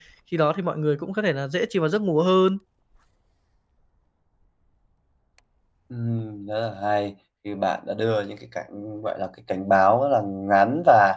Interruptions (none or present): none